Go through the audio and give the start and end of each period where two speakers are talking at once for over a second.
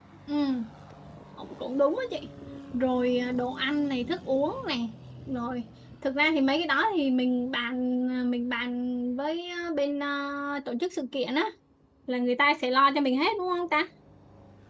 none

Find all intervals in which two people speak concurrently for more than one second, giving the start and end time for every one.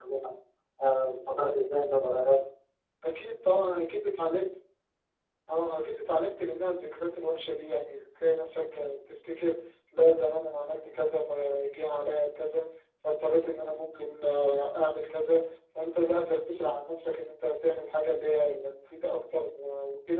none

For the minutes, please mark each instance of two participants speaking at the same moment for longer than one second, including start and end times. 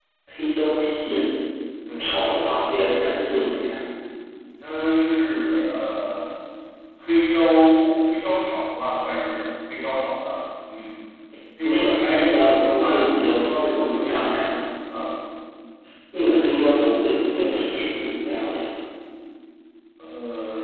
11.6-14.2

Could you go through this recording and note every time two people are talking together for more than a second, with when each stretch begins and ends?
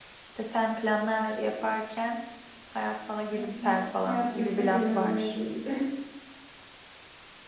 4.0-5.3

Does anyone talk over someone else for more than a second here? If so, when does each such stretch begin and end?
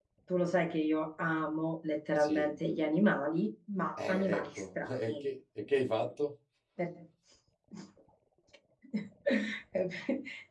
4.0-5.2

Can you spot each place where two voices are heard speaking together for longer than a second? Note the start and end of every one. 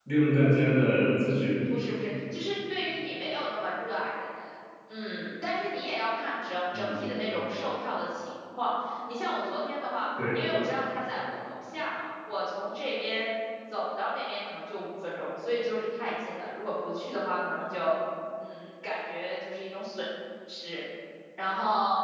none

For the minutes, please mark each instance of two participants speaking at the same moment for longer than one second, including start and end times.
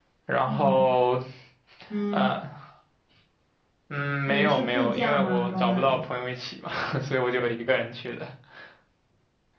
4.3-6.0

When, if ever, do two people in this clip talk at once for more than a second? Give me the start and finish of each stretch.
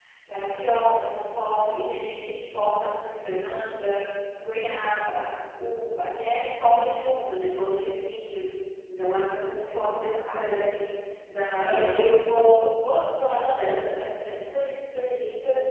9.6-10.8

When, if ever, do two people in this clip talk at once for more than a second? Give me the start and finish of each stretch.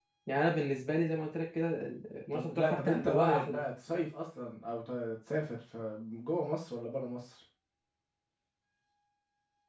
2.3-3.6

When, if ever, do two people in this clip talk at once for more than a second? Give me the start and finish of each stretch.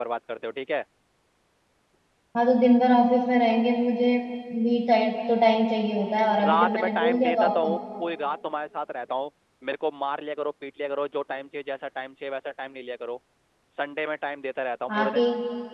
6.4-7.7

